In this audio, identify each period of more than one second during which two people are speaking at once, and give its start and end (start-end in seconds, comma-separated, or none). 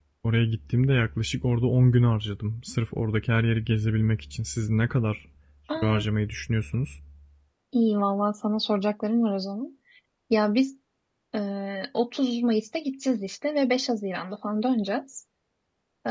none